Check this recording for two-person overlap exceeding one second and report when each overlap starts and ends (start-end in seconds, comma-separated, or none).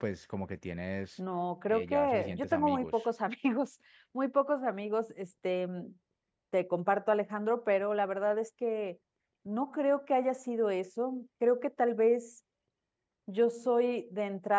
1.7-3.0